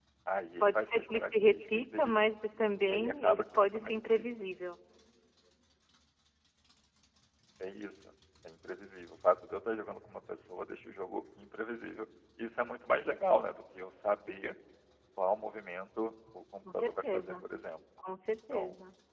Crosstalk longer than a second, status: present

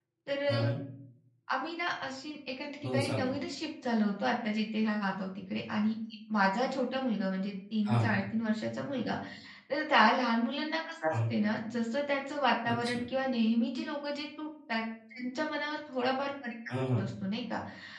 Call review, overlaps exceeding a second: none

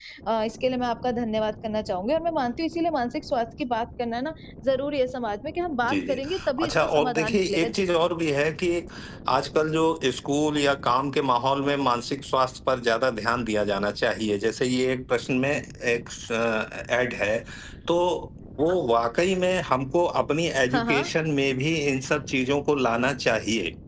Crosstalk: present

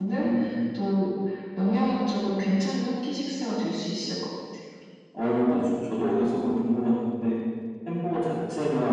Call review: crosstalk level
none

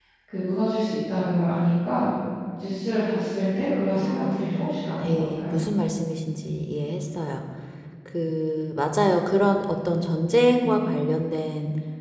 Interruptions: present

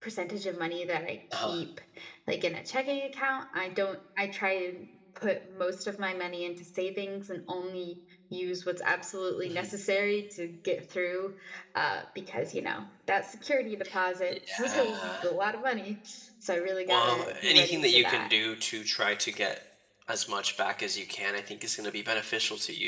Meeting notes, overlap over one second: present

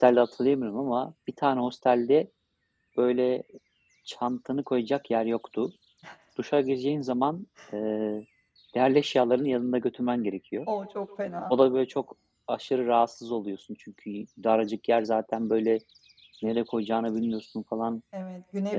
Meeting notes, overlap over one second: none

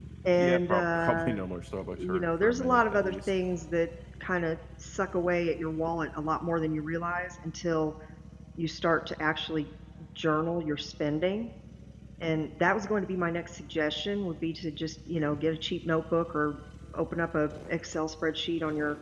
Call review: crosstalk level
present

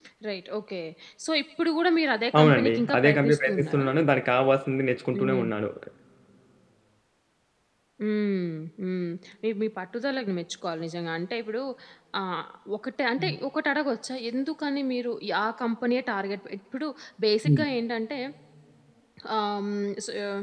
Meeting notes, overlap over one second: present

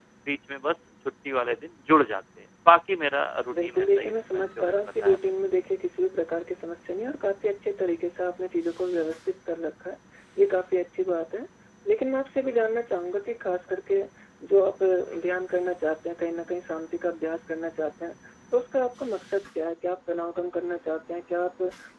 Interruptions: present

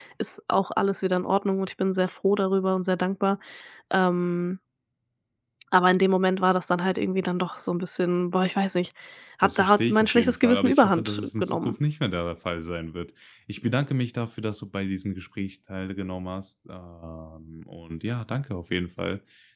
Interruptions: present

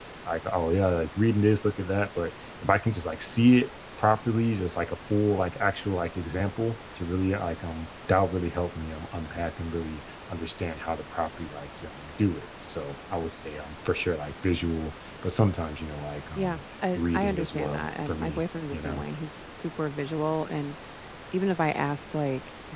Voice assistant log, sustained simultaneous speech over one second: present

